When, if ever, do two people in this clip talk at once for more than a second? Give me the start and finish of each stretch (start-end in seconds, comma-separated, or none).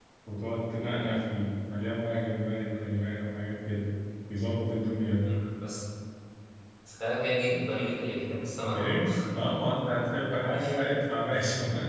none